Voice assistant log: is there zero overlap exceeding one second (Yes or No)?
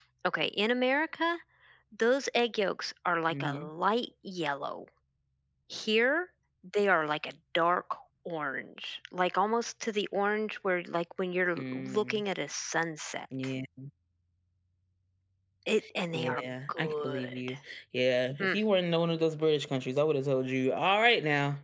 No